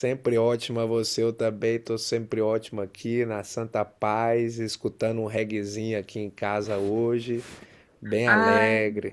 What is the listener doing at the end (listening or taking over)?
taking over